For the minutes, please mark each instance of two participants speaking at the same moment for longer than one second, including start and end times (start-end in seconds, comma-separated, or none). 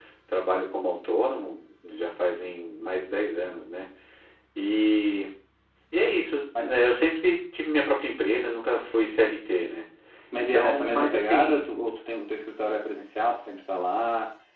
10.4-11.7